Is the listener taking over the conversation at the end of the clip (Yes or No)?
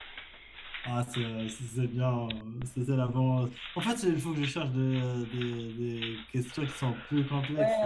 Yes